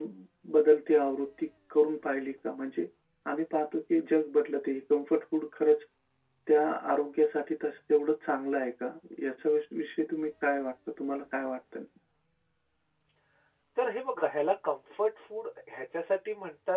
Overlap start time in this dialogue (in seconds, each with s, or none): none